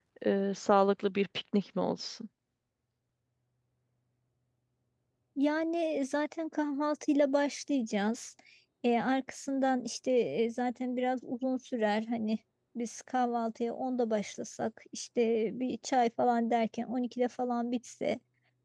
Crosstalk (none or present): none